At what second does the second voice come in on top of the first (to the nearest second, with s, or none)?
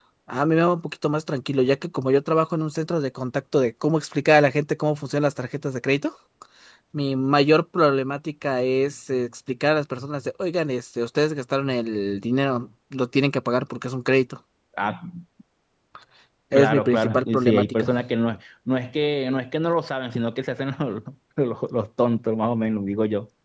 17 s